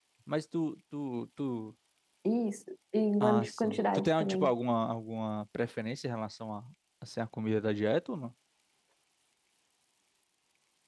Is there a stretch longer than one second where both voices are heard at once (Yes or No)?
Yes